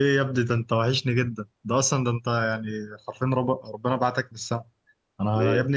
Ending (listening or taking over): listening